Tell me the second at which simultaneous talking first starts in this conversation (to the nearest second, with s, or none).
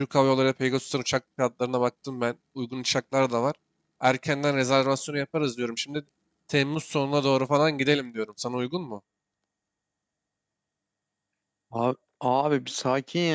none